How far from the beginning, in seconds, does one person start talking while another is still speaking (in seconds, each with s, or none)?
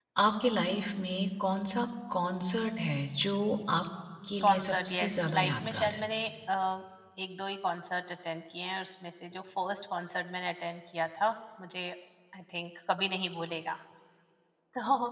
4.4 s